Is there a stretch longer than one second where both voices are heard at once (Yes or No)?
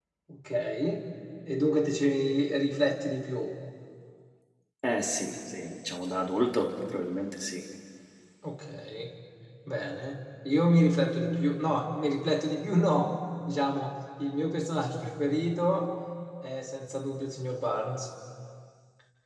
No